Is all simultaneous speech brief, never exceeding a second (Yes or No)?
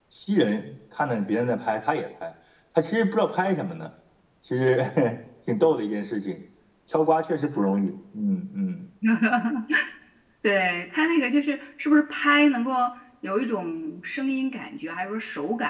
Yes